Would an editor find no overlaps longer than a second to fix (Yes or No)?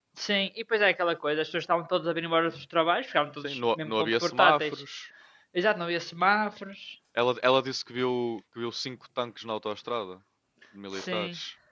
No